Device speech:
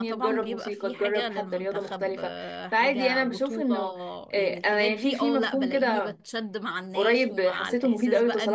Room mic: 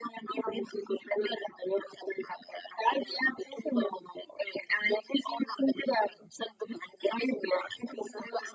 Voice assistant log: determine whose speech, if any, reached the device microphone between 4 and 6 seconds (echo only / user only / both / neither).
echo only